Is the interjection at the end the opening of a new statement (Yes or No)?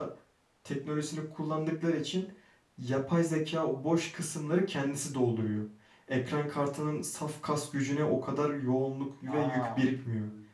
Yes